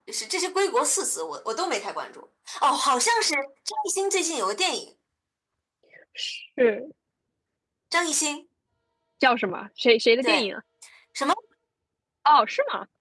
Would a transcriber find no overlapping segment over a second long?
Yes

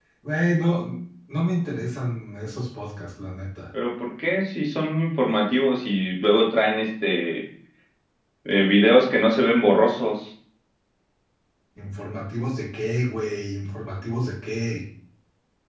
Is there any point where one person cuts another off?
No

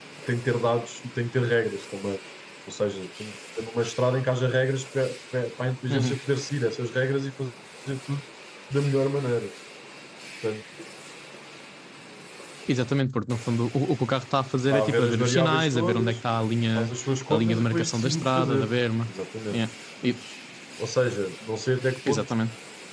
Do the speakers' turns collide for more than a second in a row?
Yes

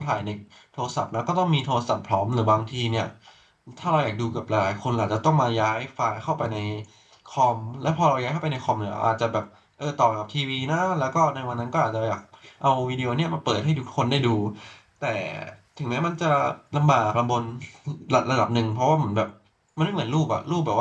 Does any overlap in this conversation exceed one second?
No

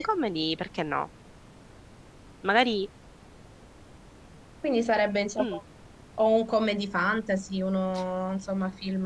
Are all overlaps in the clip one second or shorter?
Yes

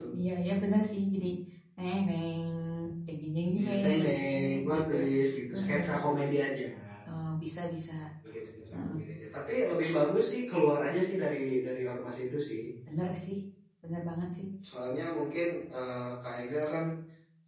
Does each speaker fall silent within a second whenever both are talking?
No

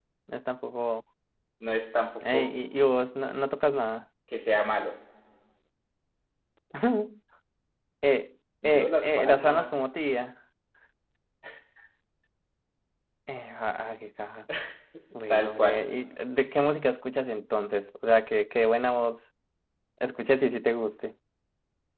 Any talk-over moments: Yes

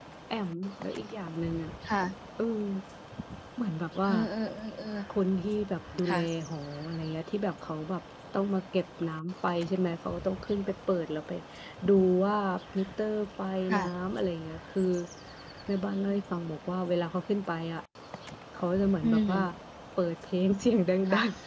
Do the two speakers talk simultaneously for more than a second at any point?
No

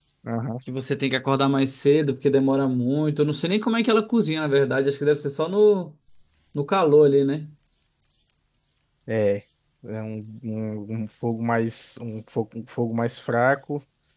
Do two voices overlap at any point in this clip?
No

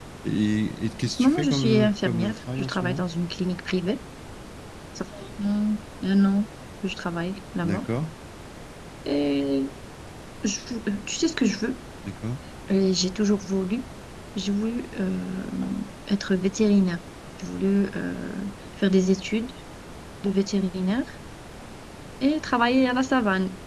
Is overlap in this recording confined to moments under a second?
No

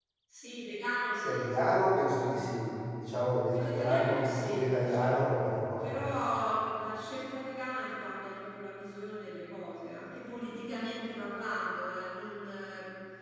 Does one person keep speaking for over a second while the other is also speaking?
Yes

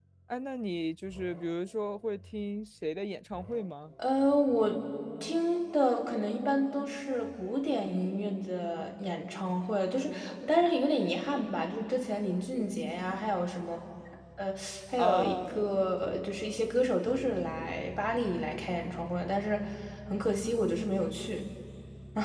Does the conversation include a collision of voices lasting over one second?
No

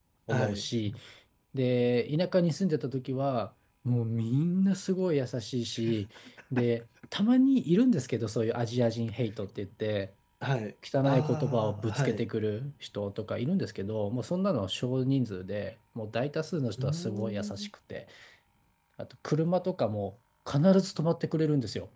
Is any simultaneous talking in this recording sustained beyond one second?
Yes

